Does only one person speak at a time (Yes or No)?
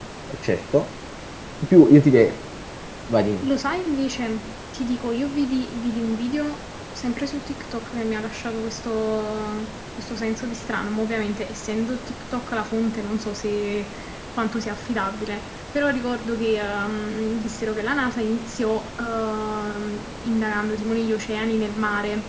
Yes